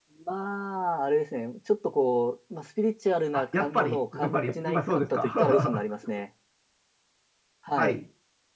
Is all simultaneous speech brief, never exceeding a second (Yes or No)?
No